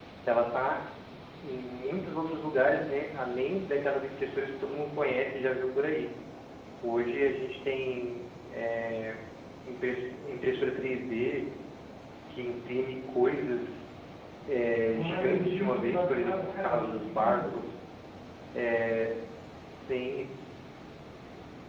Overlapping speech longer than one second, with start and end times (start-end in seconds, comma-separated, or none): 14.8-17.6